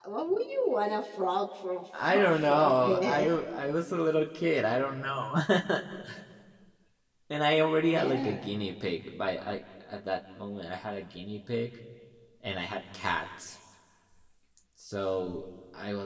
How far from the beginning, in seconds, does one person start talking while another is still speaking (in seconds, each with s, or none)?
2.0 s